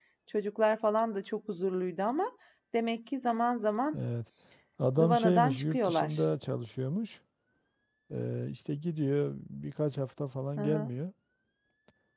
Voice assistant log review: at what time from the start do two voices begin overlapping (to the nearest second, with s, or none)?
5 s